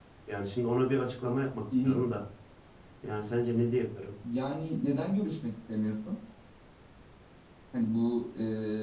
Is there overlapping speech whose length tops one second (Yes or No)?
No